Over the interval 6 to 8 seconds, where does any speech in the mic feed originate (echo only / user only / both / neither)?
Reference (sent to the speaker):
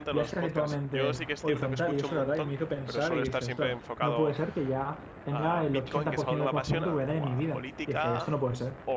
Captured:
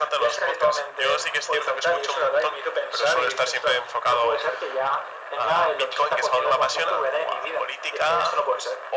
echo only